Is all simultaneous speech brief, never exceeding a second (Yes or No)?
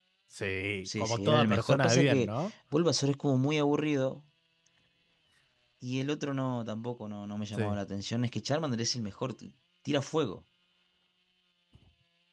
No